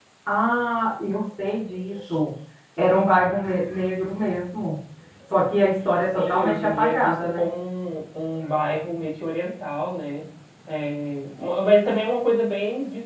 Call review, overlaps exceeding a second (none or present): present